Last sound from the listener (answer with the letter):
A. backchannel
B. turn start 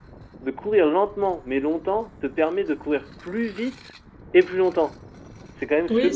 B